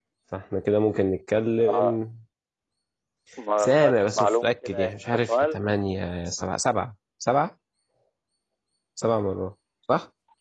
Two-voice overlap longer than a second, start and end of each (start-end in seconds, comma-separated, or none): 3.6-5.6